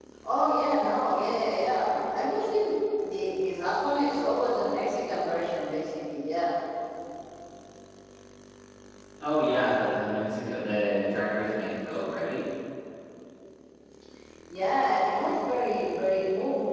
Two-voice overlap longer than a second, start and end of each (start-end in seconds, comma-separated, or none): none